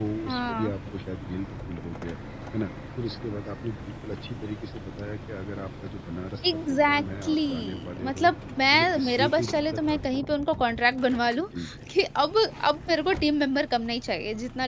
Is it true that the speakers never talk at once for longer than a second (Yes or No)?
No